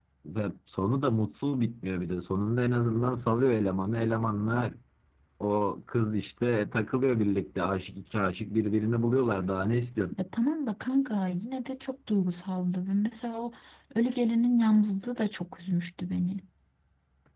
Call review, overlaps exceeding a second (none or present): none